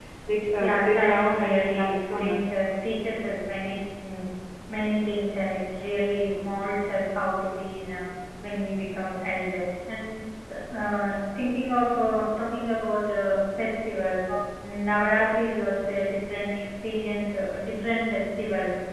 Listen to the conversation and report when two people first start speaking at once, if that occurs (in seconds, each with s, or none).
0.6 s